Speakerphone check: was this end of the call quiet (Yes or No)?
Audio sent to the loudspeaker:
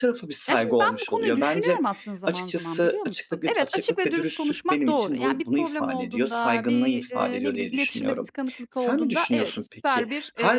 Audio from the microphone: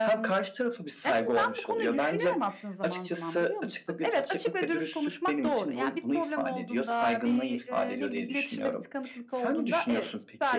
Yes